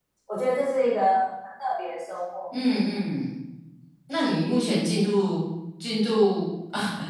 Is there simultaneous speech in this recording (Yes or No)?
No